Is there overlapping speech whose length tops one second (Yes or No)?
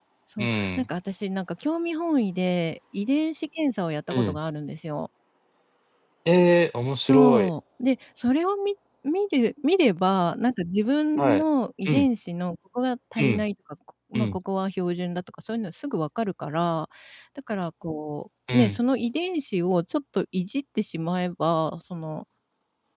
No